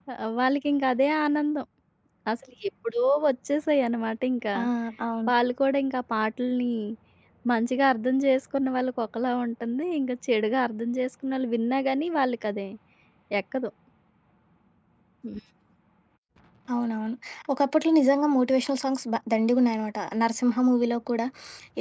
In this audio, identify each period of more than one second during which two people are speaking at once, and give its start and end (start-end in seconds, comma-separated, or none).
none